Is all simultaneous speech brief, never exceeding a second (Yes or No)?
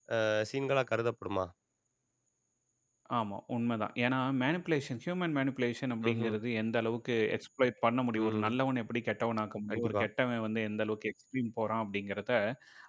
Yes